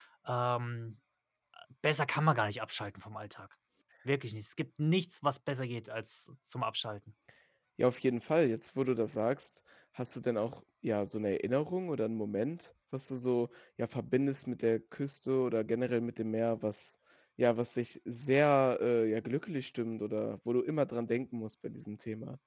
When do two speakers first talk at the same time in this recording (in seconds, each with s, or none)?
none